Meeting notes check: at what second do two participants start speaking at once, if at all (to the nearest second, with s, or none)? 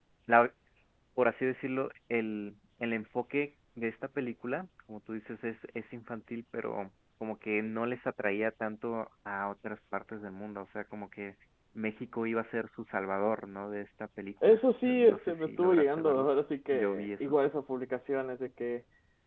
14 s